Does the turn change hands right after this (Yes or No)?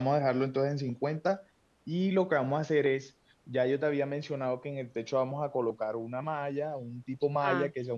No